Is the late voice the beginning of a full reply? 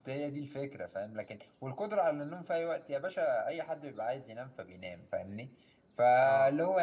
No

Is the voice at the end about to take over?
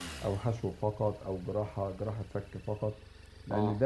No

